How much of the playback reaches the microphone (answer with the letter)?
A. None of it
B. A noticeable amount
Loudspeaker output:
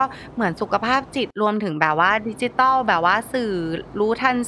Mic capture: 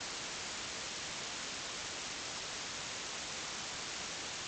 A